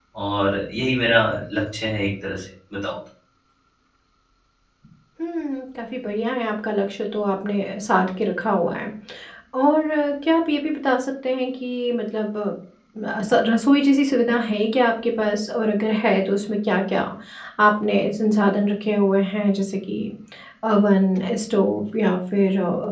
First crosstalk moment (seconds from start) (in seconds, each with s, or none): none